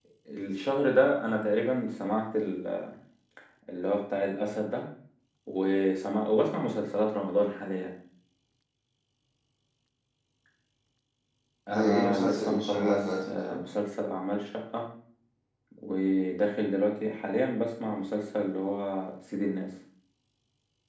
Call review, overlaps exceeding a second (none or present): present